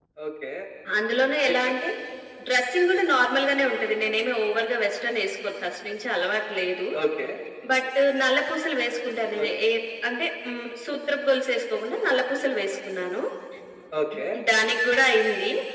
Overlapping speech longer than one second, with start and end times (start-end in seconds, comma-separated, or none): none